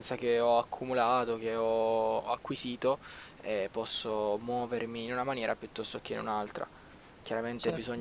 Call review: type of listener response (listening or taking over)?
listening